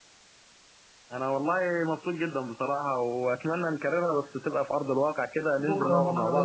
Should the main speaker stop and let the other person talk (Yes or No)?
Yes